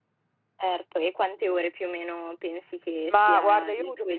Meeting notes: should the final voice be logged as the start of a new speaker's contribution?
Yes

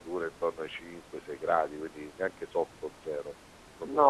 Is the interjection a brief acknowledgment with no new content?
No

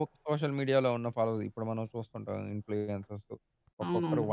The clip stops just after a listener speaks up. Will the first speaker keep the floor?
Yes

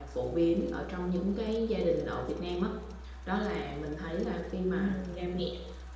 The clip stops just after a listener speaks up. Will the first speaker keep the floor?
Yes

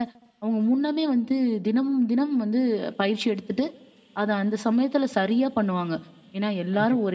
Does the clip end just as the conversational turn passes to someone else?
No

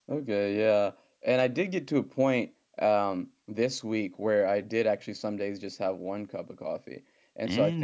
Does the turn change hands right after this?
No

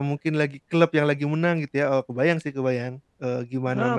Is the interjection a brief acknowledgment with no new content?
No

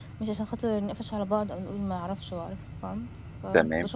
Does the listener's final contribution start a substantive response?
Yes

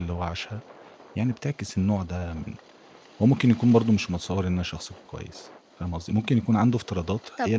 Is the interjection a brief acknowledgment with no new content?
Yes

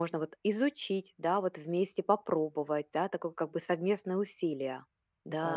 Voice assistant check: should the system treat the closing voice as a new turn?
Yes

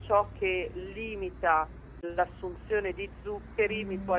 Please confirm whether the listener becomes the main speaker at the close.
No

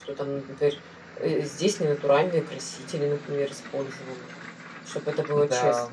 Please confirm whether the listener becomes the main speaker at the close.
Yes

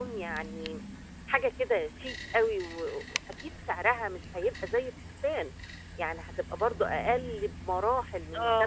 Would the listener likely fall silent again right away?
No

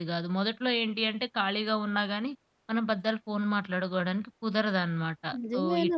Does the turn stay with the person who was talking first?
No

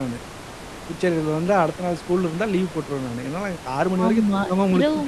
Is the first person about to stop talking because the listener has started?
Yes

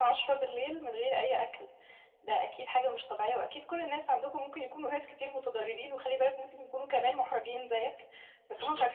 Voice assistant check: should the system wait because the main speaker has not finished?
Yes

